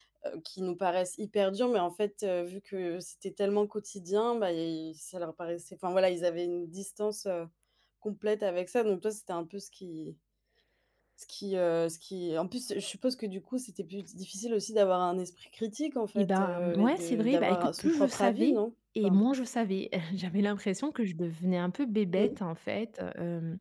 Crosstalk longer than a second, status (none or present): present